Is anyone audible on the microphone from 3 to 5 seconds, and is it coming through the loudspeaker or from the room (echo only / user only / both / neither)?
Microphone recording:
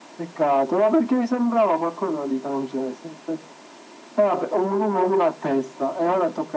echo only